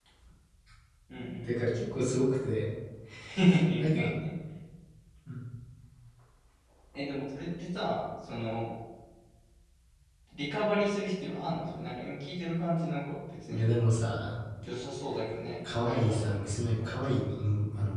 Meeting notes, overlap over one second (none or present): present